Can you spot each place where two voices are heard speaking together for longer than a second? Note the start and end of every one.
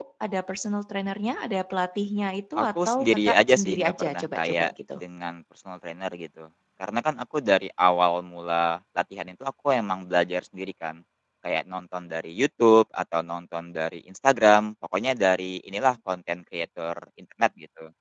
2.6-5.0

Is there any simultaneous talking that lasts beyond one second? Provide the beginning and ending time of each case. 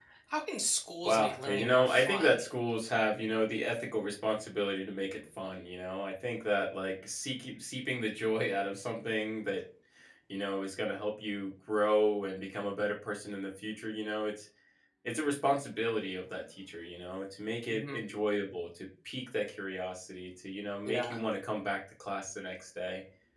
1.0-2.4

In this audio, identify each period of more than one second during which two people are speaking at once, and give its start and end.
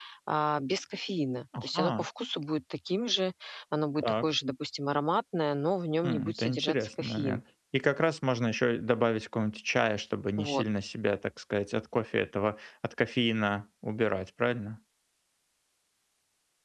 6.0-7.4

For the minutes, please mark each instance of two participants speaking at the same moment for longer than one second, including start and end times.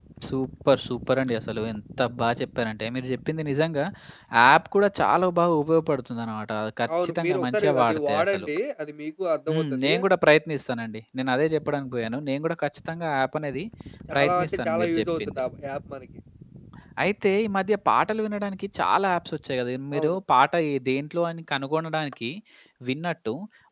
7.0-8.5, 14.2-15.4

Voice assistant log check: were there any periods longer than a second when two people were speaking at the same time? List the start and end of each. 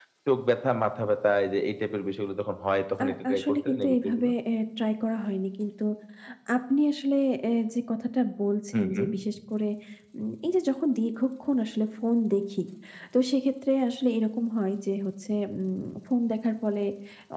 3.0-4.3

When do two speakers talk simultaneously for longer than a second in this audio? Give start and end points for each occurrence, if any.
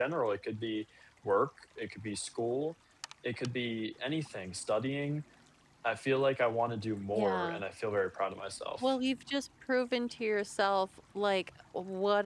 none

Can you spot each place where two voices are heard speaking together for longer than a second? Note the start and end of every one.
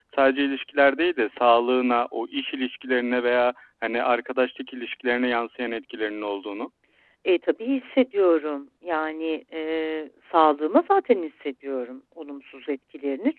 none

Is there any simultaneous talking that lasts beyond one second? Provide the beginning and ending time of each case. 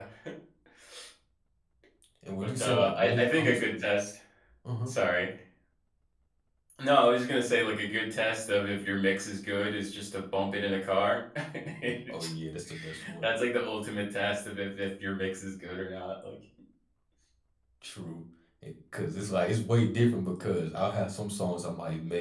2.4-3.8

